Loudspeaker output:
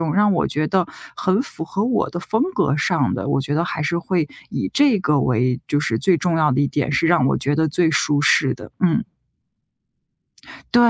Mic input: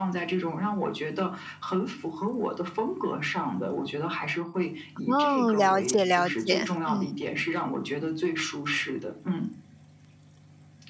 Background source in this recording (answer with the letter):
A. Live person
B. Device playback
B